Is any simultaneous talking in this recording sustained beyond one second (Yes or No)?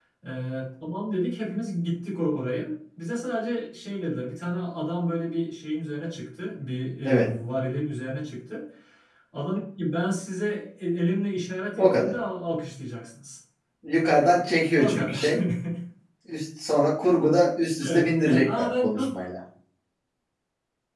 Yes